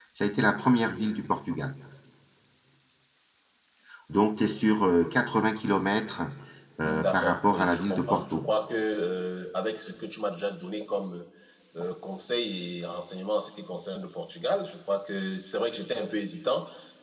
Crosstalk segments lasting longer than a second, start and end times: 6.8-8.5

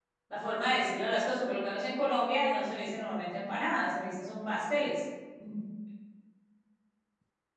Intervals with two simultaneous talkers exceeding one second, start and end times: none

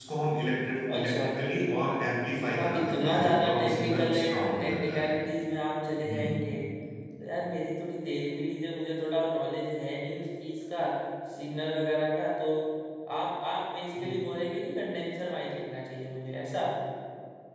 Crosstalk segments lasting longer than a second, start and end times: 2.4-5.1

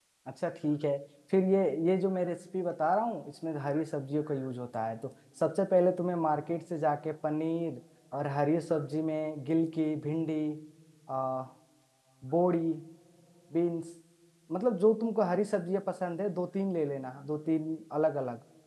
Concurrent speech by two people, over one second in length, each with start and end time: none

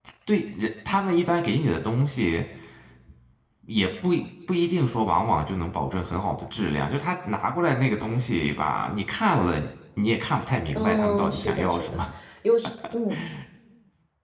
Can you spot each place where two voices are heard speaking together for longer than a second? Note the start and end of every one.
10.8-12.0

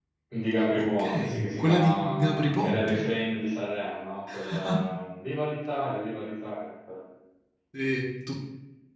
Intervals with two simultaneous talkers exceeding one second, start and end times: 0.8-3.1

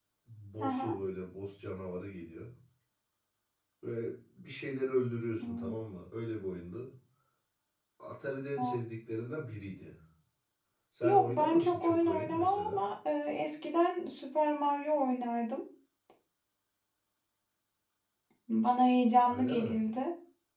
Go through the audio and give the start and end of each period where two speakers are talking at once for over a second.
11.0-12.8

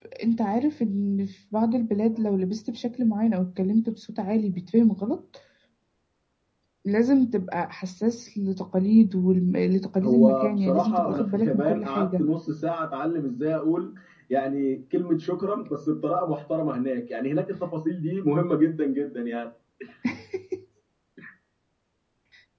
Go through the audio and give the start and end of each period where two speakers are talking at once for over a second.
10.0-12.2

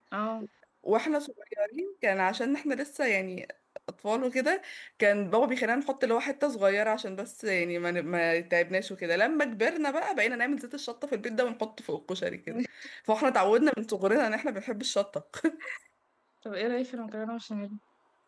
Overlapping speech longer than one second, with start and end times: none

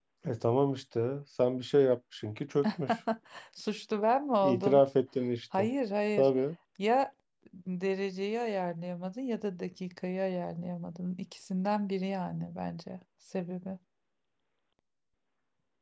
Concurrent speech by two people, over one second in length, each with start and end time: none

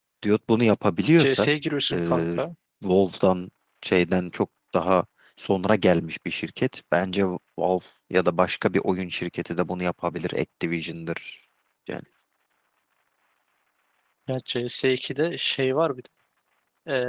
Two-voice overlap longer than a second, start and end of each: none

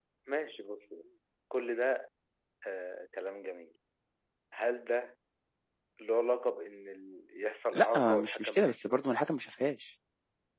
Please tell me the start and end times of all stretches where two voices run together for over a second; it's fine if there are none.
7.7-9.0

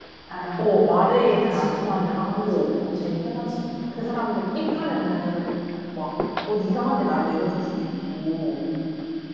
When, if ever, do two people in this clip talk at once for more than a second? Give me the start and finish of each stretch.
1.3-2.7

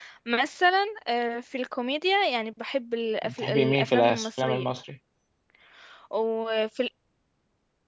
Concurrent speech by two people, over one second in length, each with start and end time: 3.2-4.7

